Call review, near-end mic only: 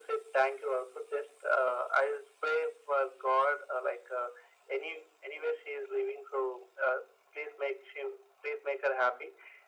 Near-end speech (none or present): none